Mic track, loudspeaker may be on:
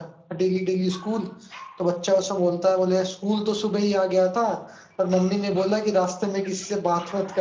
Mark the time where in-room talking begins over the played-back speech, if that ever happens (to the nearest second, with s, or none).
none